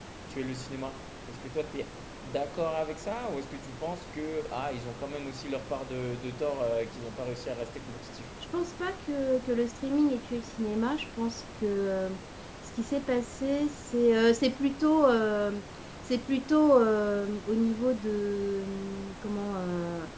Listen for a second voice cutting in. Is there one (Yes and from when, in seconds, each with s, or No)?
No